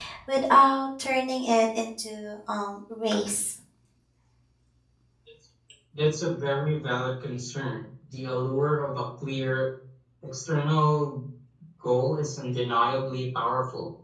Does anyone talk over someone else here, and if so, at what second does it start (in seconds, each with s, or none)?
none